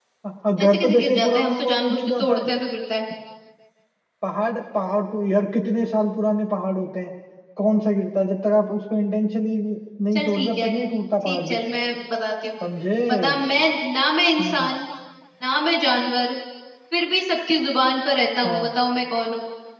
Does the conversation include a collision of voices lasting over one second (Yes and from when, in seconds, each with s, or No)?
Yes, from 0.6 s